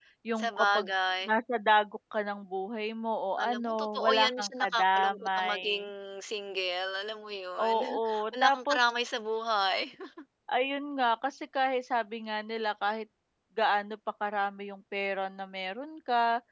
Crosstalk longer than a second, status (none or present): present